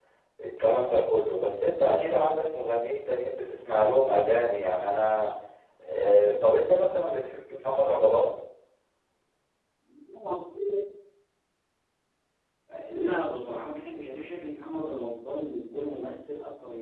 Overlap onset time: none

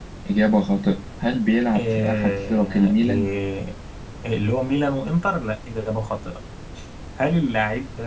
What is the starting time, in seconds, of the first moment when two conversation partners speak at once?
1.7 s

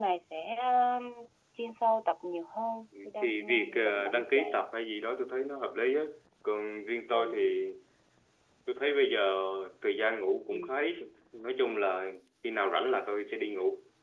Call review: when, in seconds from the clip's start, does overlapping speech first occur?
3.0 s

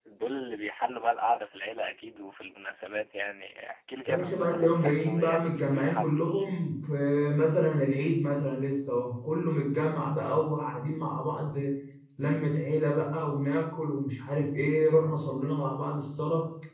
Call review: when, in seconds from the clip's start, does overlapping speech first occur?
4.1 s

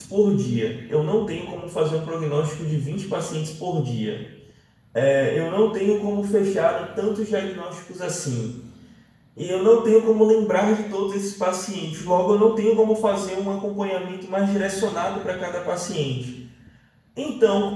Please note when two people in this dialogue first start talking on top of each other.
none

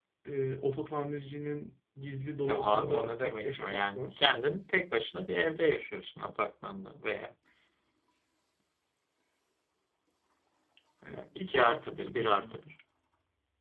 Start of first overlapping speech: 2.5 s

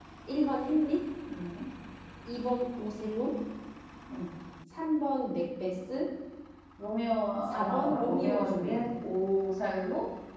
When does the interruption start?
7.5 s

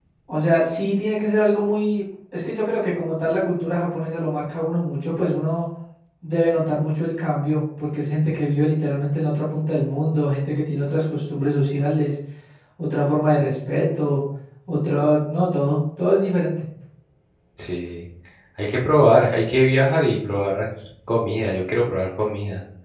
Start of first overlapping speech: none

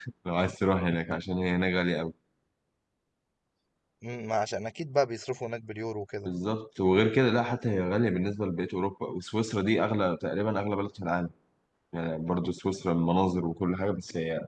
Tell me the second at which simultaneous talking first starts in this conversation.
none

